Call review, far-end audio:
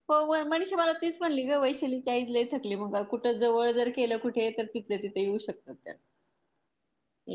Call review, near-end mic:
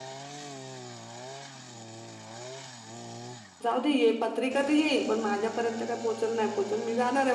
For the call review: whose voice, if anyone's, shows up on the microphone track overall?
user only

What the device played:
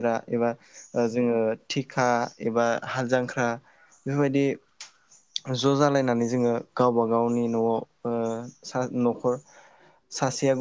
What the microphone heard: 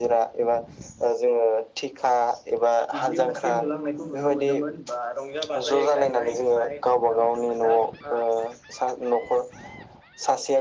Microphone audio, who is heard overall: both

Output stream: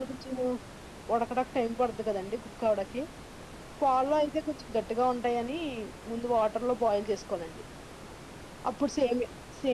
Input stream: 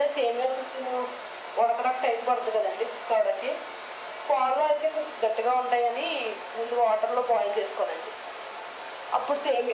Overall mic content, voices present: echo only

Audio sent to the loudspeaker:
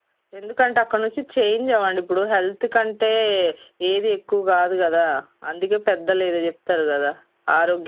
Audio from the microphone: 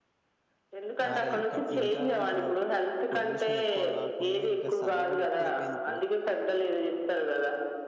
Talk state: both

